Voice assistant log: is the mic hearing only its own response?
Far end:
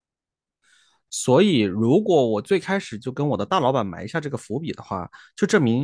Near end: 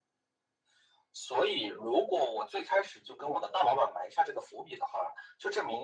Yes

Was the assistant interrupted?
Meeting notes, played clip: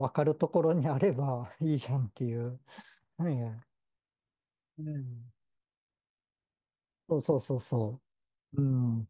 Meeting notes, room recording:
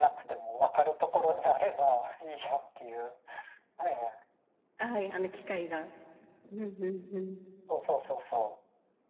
Yes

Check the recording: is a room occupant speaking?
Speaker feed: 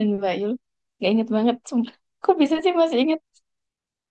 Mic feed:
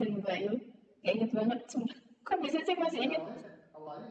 Yes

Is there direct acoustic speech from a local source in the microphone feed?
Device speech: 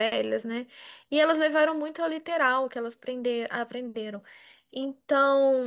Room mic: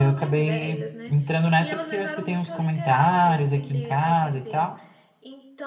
Yes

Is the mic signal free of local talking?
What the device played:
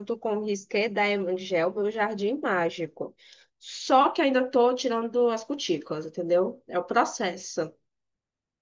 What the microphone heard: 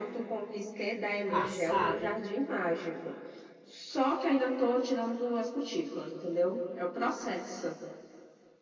No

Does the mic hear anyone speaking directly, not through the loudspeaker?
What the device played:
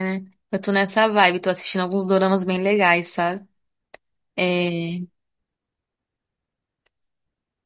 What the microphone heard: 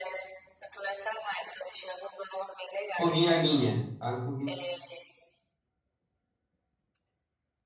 Yes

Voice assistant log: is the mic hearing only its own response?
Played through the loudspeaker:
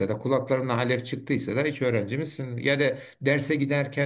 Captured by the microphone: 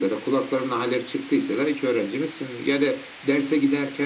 Yes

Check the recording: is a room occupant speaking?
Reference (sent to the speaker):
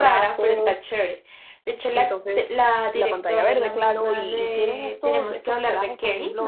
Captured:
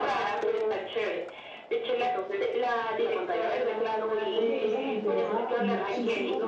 Yes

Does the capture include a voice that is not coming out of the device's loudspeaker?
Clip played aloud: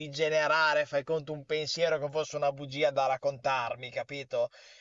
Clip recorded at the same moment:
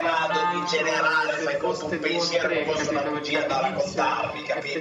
Yes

